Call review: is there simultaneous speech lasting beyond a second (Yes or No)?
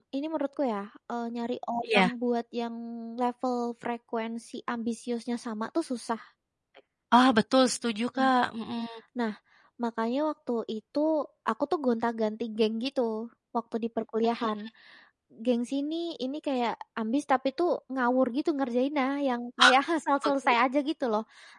No